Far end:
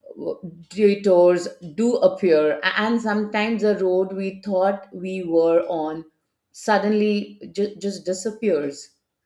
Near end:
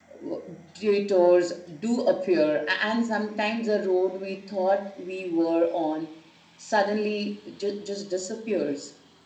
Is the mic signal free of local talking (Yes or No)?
Yes